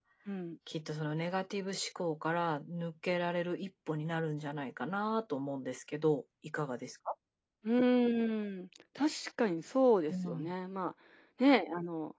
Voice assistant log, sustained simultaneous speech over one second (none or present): none